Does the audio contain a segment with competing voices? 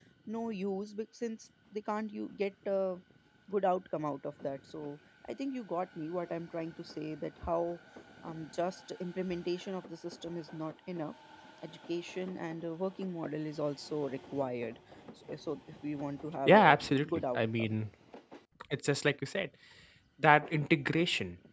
Yes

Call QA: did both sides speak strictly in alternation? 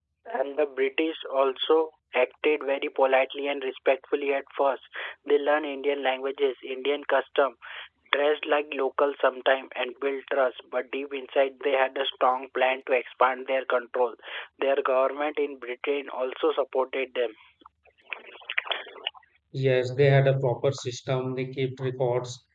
Yes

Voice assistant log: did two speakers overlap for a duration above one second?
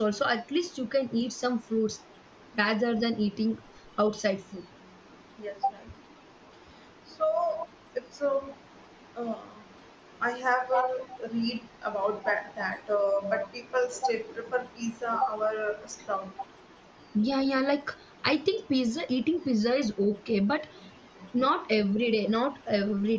No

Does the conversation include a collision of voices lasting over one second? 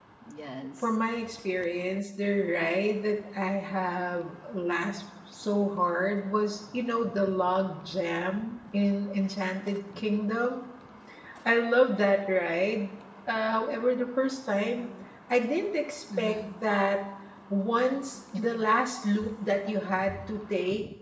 No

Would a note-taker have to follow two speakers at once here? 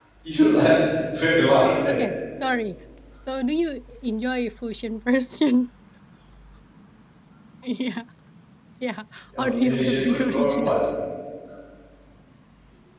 Yes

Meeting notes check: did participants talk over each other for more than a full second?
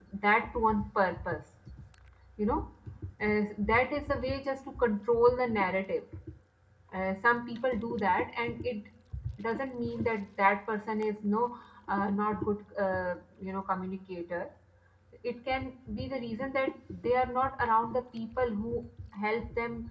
No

